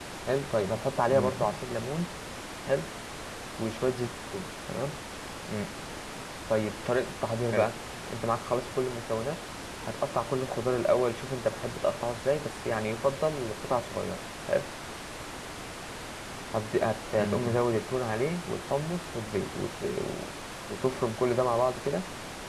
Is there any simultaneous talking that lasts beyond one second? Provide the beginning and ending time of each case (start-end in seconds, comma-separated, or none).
none